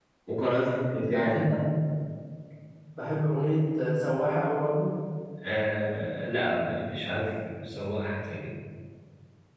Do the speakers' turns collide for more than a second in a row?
No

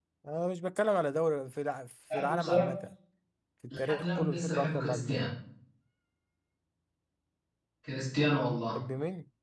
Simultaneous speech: Yes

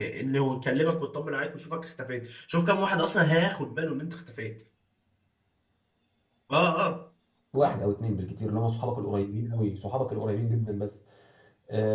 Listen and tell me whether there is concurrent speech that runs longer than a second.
No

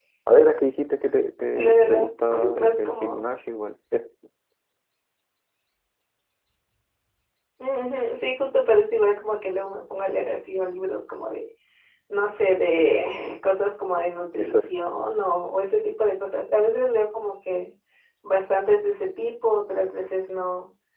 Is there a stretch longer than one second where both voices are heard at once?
Yes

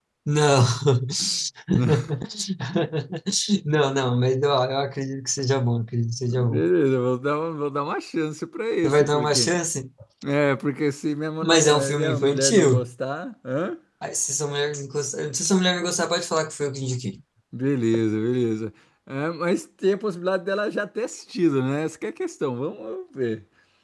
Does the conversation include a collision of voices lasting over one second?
Yes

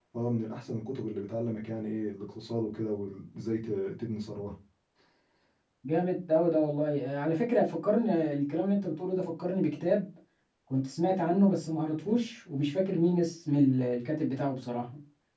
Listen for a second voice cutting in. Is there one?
No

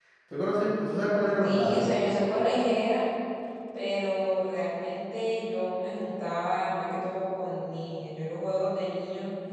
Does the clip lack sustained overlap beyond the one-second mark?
Yes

